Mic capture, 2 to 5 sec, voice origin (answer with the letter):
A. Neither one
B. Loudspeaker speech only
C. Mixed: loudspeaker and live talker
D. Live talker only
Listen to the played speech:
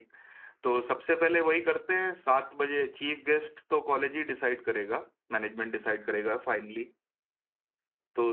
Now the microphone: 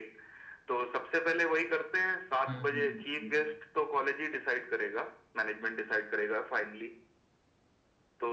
C